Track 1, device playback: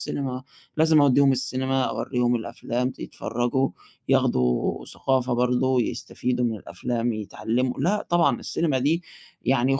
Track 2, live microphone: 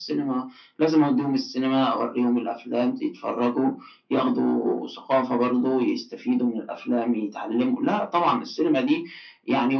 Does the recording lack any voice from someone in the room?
Yes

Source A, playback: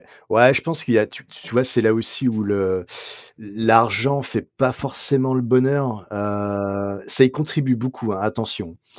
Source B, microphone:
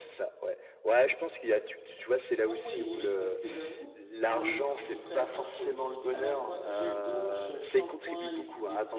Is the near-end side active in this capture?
Yes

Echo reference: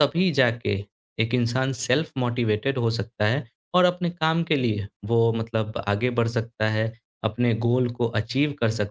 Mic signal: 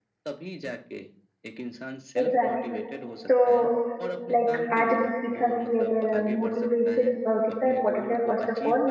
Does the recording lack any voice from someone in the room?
No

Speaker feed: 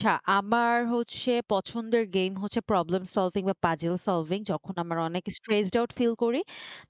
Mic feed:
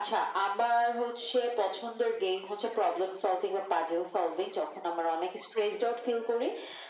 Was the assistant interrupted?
No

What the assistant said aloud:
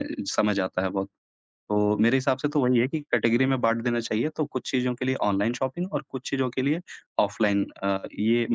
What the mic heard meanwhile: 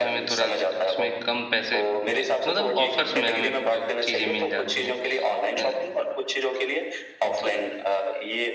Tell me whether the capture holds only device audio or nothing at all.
No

